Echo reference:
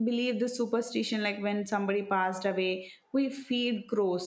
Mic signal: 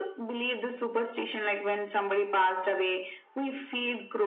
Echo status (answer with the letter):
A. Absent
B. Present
B